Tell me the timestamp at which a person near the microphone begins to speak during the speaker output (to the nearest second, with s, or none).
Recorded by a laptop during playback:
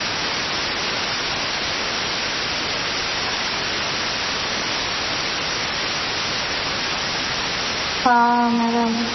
8 s